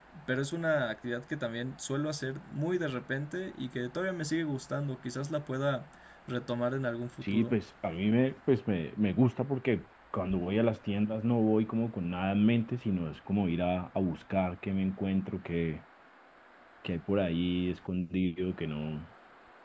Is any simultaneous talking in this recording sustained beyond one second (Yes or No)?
No